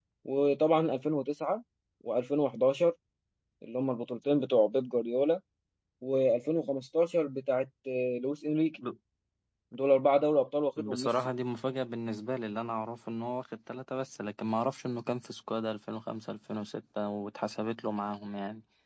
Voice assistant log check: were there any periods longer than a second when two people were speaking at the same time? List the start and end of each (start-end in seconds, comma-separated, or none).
none